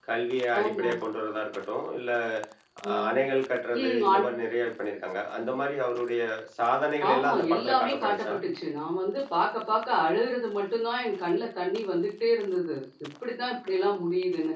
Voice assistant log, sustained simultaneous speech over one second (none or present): present